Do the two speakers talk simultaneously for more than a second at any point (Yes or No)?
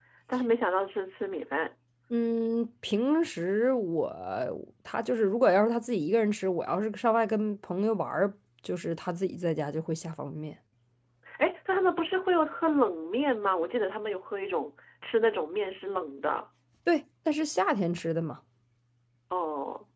No